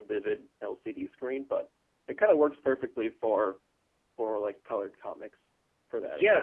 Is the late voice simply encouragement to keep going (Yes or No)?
No